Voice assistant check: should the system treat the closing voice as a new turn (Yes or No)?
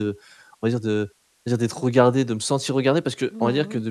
No